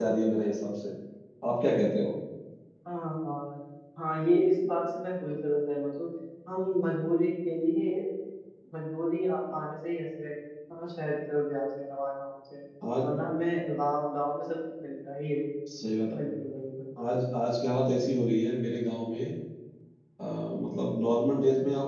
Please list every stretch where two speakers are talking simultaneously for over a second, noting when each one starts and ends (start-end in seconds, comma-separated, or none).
none